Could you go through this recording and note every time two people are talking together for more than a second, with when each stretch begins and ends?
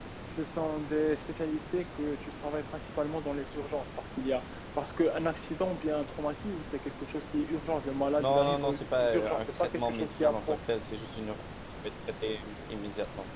8.2-10.6

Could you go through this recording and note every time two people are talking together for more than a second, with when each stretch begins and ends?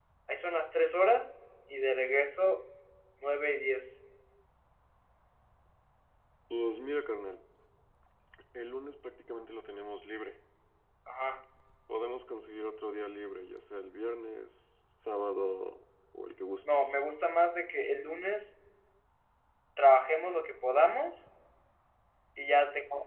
none

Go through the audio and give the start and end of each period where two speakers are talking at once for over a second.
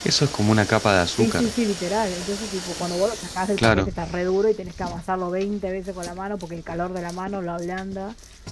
none

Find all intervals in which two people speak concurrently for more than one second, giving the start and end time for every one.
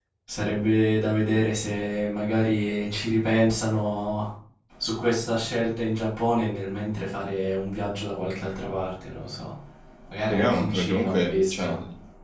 10.3-11.7

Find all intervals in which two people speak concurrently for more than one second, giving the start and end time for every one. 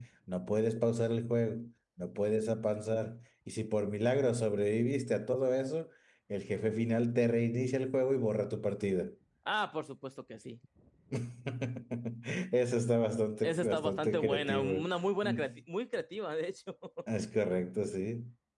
13.4-14.8

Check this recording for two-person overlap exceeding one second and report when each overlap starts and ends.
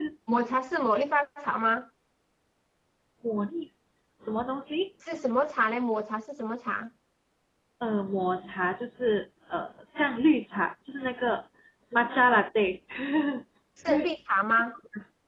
none

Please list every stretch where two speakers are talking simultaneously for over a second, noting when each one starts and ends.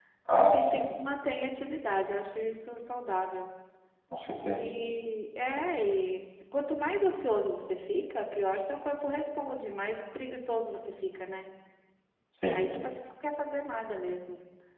none

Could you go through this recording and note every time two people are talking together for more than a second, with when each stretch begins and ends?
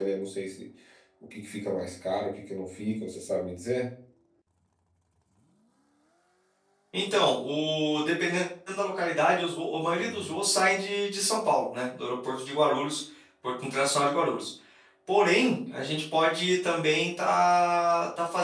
none

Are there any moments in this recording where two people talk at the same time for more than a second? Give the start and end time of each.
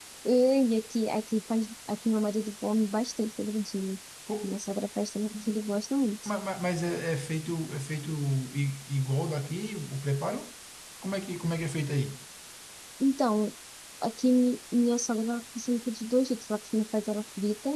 none

